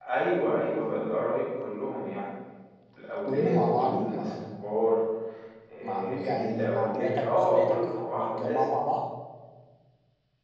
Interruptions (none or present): present